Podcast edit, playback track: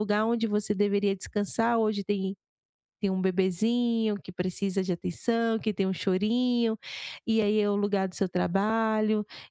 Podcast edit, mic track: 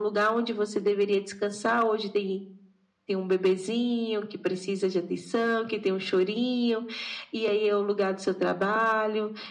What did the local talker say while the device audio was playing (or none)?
none